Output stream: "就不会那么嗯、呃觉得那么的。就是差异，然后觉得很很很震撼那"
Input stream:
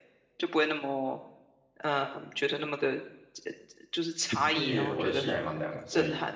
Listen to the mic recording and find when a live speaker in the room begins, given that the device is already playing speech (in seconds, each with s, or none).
4.5 s